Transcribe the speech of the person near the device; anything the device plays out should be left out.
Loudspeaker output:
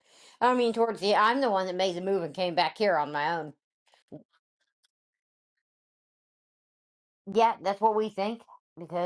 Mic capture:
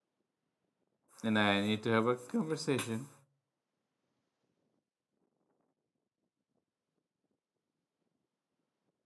and I need to have a conversation.

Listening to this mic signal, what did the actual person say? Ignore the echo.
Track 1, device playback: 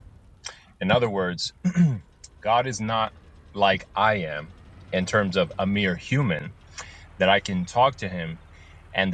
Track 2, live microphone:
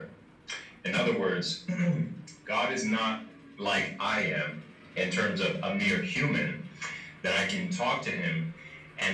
none

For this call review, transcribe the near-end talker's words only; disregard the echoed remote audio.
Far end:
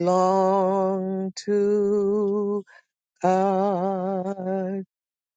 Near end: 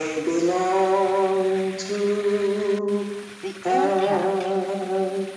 the impact

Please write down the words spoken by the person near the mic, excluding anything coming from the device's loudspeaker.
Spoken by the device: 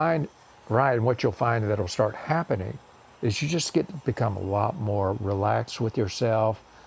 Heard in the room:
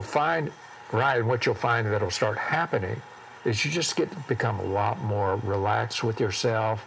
none

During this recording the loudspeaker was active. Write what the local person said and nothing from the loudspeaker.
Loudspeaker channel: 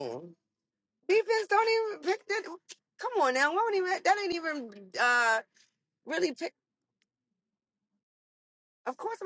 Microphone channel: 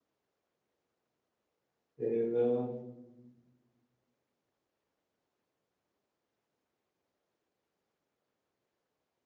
You know.

